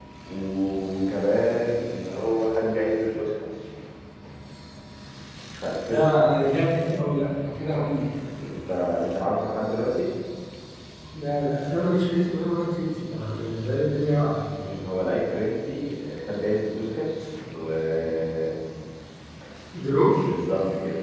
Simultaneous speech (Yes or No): No